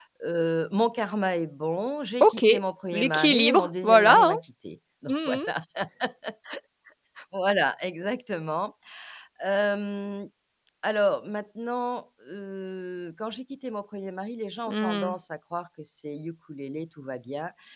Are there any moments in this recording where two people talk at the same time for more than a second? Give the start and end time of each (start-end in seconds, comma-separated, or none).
2.9-4.4